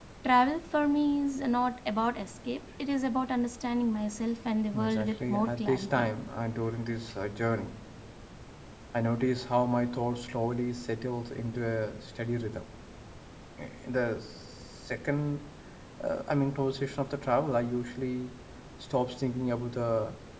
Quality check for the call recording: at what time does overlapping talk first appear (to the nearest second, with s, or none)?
5 s